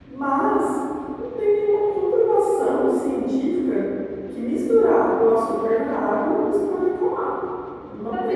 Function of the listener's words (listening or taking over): taking over